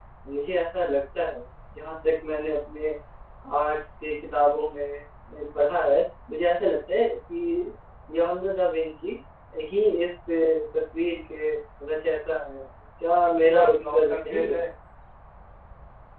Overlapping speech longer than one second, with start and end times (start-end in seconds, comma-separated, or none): 13.4-14.6